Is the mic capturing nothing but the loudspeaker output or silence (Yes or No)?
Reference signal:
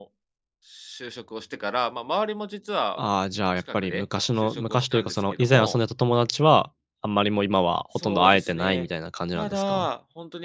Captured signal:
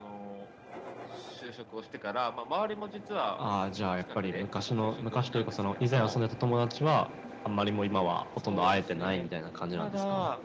Yes